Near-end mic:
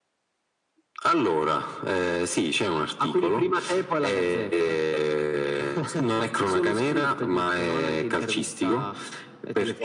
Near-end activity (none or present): none